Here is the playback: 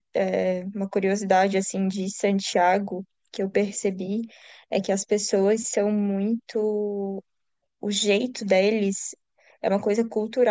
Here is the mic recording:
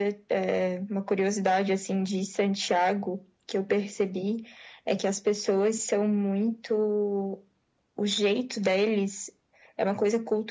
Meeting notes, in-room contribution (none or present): none